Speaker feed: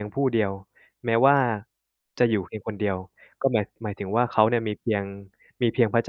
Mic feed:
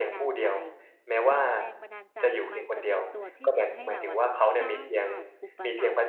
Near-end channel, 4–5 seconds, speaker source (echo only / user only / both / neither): both